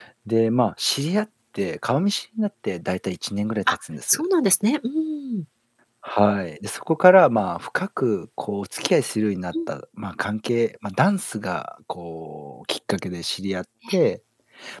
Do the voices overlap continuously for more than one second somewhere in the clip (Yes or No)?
No